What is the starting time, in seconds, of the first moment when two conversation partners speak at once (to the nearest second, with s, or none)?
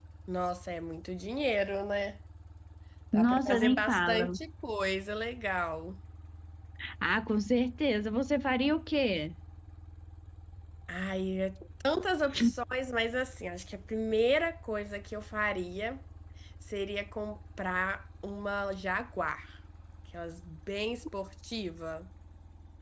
3 s